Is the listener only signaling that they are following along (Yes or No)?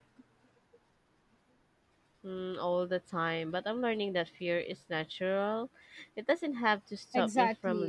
No